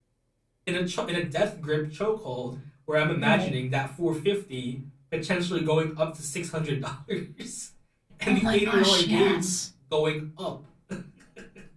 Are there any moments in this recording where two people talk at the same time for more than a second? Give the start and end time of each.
8.2-9.6

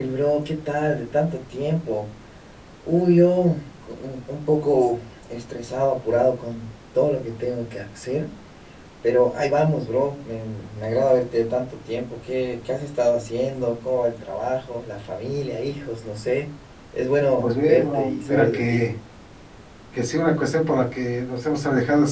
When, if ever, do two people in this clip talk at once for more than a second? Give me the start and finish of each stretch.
17.4-18.9

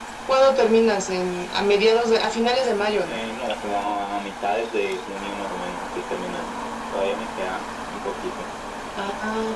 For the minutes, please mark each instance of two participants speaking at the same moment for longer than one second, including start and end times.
none

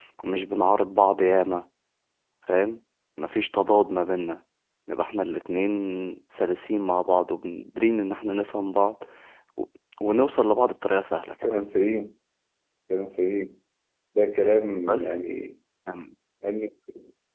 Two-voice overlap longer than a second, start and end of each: none

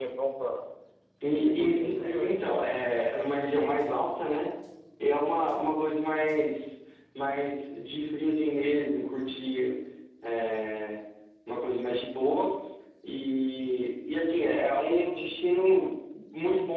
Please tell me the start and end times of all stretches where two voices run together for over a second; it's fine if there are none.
1.2-2.5

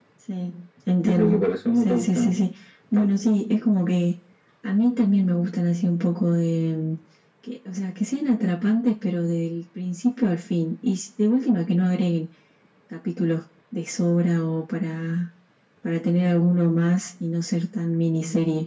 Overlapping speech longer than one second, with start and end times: 1.0-2.3

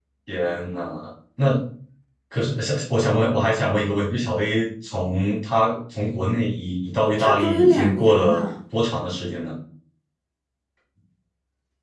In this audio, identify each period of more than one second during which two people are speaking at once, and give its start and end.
7.2-8.4

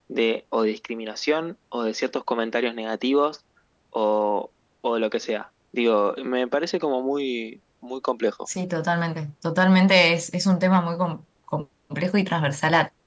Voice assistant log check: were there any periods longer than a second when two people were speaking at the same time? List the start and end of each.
none

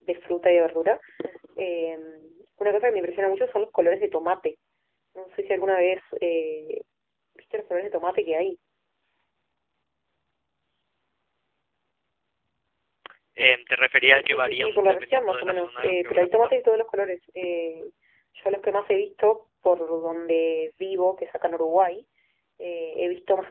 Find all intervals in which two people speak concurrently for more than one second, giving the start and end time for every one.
14.1-16.3

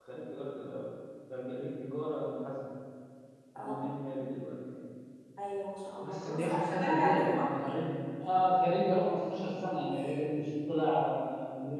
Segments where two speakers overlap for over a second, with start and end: 6.0-7.5

